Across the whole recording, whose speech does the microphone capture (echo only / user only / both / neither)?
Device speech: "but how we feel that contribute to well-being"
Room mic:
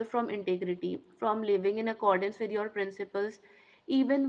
user only